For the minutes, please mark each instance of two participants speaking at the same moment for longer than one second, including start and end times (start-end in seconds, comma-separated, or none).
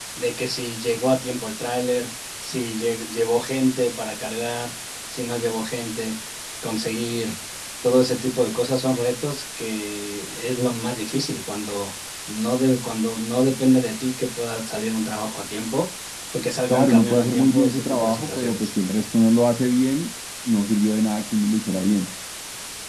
16.7-18.7